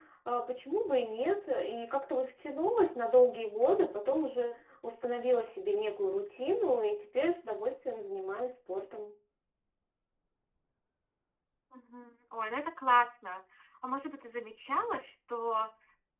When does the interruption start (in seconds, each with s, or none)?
none